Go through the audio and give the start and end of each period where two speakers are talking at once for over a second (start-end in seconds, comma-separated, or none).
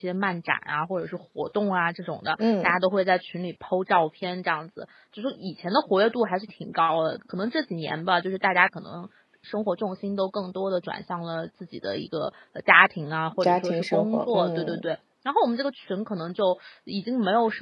13.4-14.8